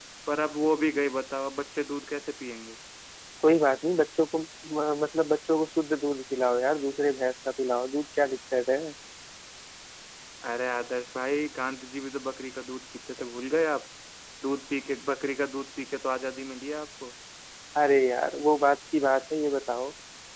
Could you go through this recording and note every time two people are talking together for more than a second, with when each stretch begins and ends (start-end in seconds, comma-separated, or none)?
none